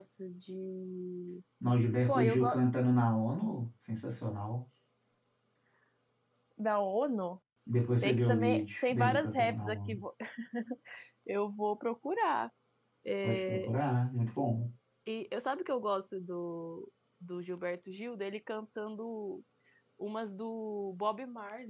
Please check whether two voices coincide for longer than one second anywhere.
Yes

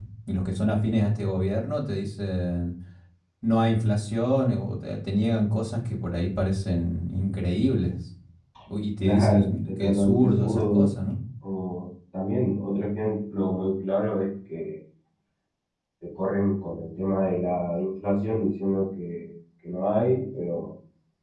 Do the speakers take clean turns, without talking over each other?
No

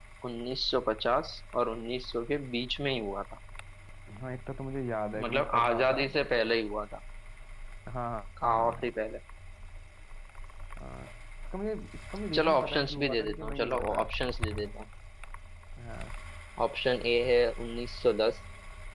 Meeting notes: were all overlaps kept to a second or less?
No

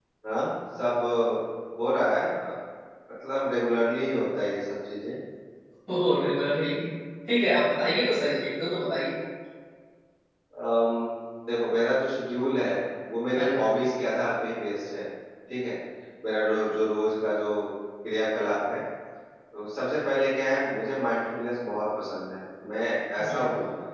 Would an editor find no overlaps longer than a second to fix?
Yes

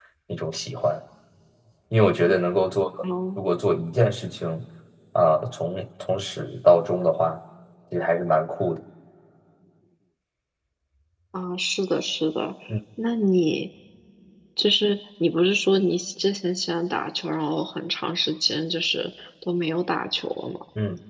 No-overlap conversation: Yes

